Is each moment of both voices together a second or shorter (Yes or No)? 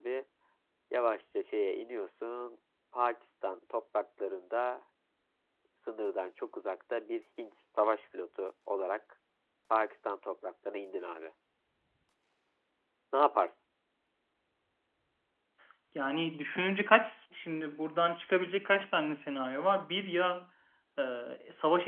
Yes